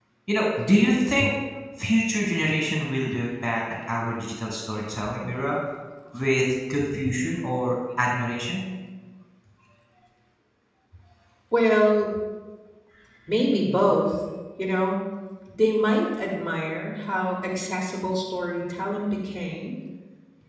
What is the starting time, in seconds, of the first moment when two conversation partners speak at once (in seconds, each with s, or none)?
none